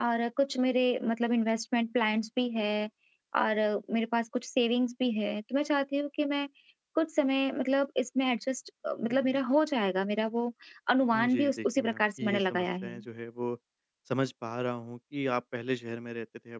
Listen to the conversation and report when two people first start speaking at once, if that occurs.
11 s

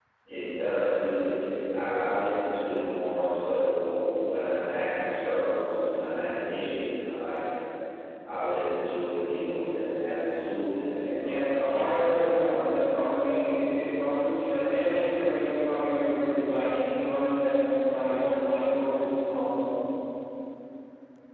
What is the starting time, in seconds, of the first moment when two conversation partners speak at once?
11 s

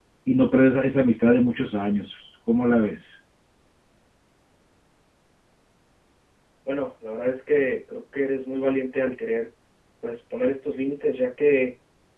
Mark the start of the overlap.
none

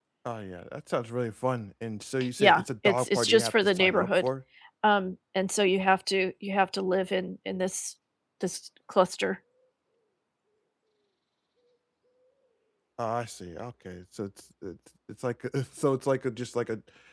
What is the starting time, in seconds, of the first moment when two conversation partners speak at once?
2 s

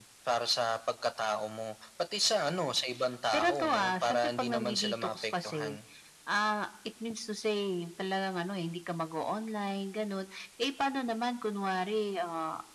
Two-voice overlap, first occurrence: 3 s

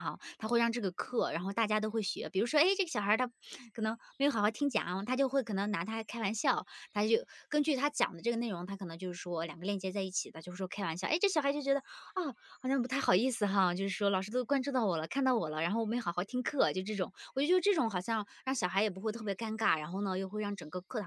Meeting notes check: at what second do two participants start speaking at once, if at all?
none

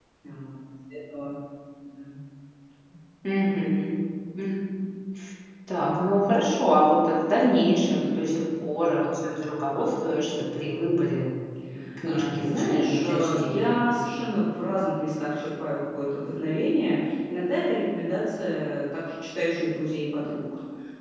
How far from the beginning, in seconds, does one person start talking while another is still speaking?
12 s

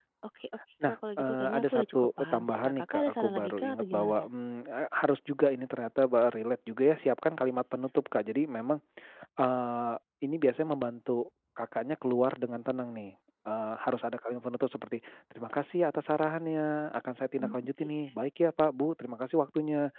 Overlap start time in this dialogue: 1 s

